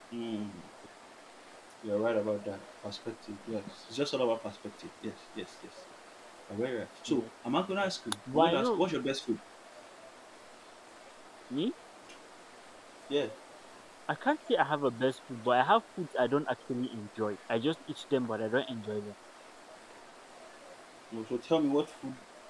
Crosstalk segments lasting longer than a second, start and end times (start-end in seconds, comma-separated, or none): none